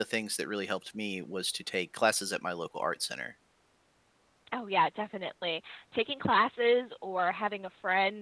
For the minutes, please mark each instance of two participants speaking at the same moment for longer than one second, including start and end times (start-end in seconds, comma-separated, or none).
none